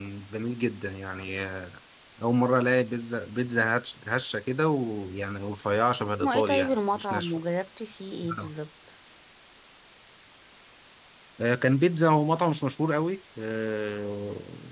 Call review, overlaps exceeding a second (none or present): present